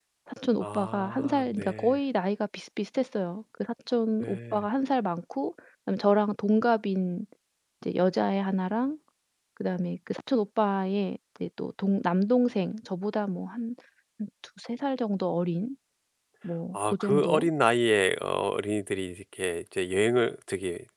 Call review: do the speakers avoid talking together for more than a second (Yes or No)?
No